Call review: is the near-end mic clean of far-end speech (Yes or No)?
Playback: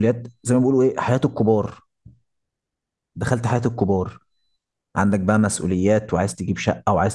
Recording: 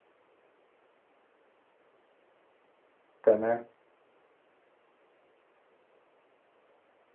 Yes